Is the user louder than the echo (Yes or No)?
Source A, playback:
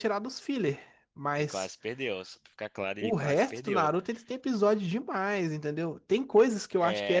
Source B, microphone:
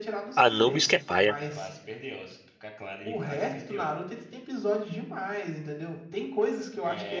Yes